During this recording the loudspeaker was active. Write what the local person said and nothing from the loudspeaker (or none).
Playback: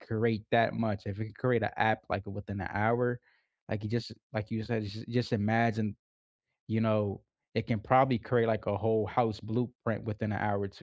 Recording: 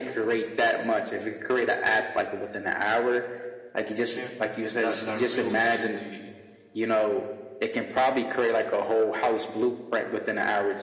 can't that that realistically